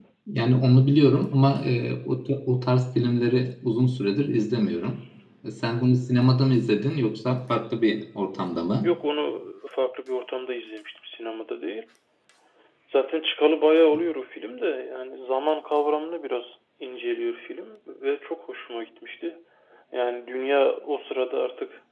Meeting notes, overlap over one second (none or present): none